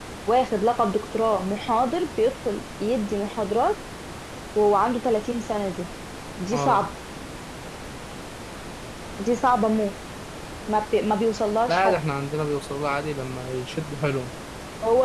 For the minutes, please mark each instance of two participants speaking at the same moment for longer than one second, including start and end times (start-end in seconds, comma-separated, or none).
none